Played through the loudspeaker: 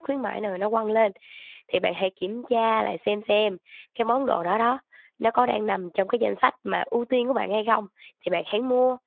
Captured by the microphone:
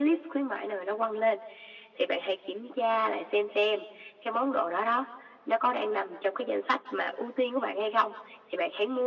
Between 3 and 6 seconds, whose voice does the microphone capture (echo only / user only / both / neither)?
echo only